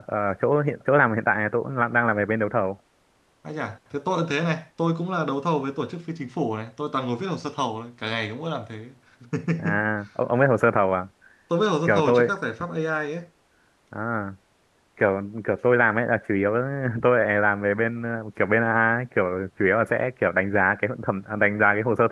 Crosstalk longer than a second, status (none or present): none